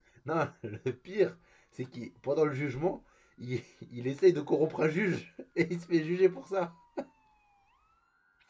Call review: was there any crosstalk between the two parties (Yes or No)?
No